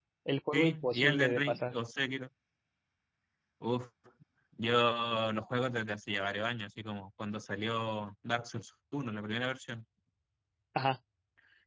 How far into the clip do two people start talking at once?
0.5 s

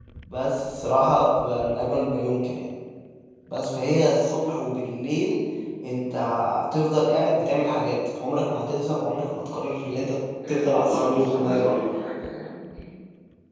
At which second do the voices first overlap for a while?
10.4 s

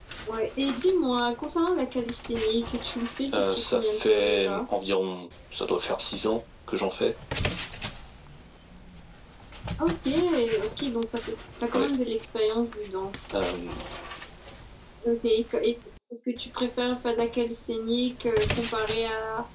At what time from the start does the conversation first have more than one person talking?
3.3 s

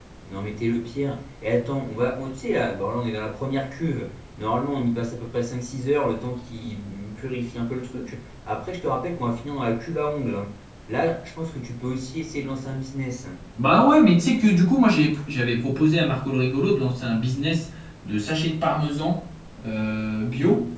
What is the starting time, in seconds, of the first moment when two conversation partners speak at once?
none

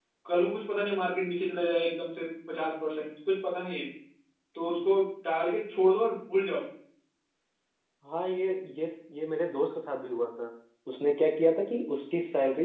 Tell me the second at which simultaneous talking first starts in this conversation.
none

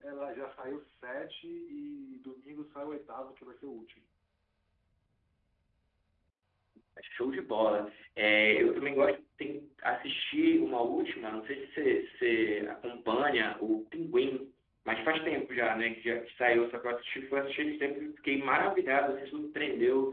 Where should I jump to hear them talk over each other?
none

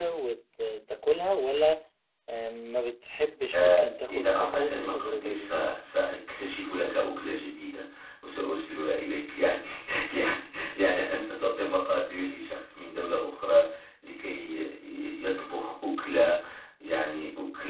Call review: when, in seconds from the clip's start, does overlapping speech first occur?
3.5 s

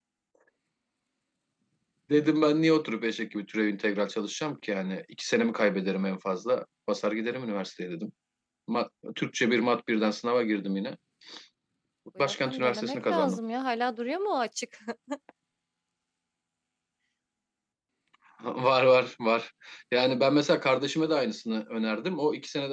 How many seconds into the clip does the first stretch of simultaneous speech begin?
12.2 s

